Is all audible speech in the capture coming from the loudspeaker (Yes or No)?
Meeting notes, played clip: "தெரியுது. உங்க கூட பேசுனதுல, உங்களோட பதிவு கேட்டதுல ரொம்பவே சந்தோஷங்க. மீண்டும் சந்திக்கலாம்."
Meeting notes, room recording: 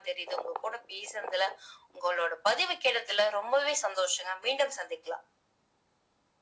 Yes